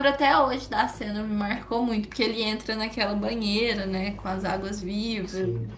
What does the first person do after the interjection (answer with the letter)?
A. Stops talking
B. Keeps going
B